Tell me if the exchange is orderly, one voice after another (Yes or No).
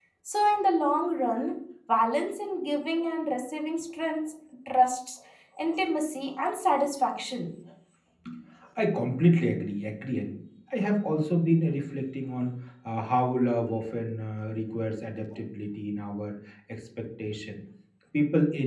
Yes